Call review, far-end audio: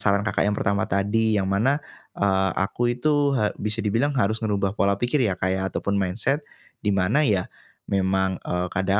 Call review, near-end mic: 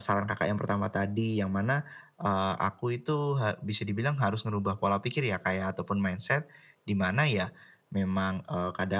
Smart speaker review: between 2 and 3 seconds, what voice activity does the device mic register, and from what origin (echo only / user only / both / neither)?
echo only